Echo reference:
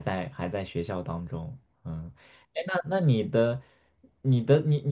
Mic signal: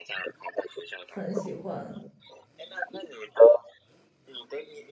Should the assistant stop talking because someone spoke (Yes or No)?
Yes